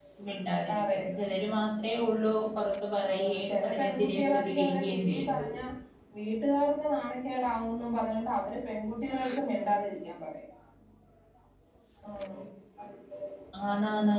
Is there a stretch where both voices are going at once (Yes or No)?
Yes